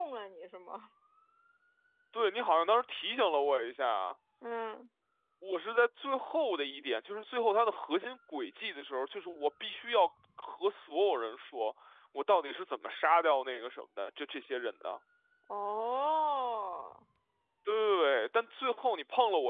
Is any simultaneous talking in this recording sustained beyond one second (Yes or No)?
No